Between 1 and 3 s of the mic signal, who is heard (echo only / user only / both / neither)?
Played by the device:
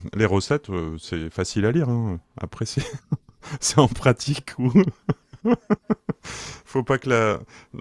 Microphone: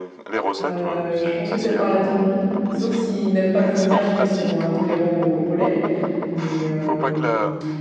both